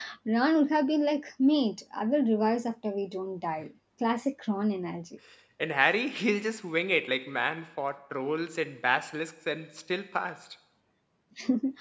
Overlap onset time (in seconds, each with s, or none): none